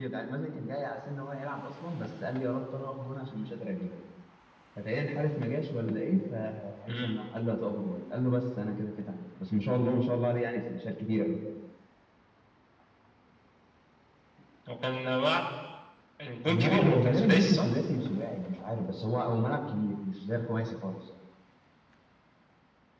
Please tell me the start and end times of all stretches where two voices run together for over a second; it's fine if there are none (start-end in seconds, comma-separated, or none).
16.5-17.7